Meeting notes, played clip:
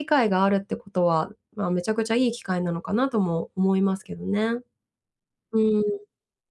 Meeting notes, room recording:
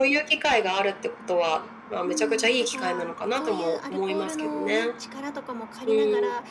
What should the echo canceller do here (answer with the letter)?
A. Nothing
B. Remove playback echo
B